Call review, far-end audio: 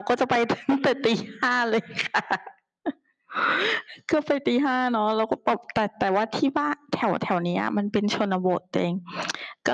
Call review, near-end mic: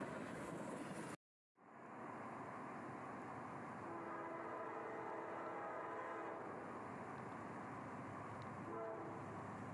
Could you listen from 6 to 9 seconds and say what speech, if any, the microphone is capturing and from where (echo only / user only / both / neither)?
neither